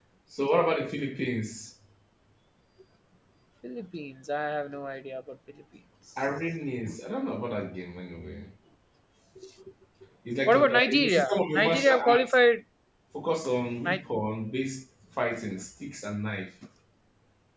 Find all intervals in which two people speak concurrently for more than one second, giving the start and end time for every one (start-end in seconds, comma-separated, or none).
10.4-12.3